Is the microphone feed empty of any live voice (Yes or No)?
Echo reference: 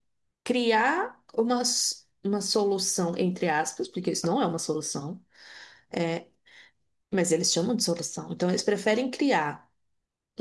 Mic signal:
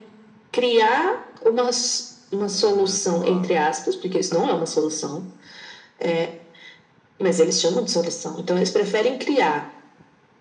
No